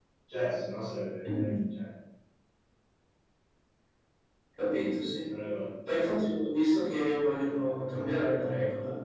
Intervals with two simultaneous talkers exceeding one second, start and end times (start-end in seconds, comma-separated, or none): none